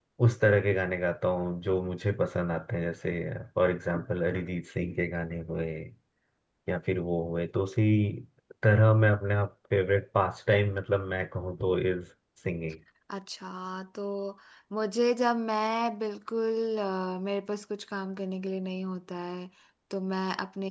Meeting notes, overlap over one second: none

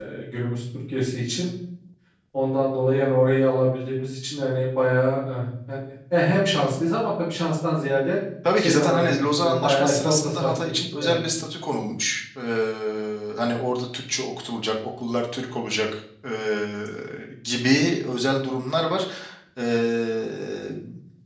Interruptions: present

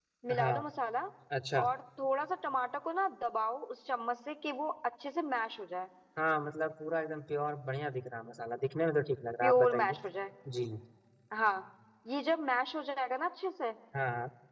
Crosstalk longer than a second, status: none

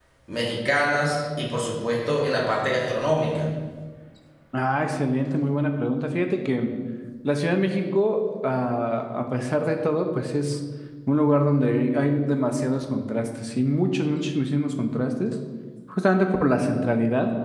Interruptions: none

